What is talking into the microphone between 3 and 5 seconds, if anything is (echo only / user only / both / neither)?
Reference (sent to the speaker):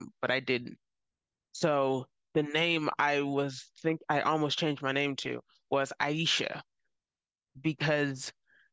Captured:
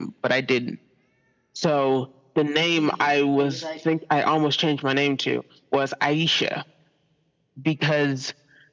both